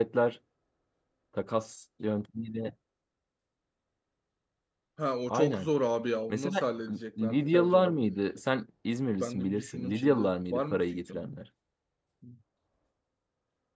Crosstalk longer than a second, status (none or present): present